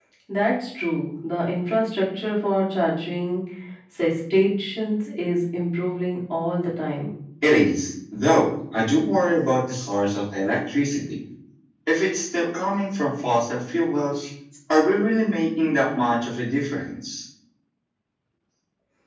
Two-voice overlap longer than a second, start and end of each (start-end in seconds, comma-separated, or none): none